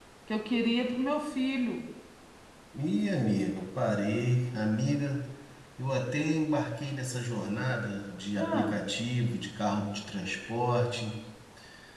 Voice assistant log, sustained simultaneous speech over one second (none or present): none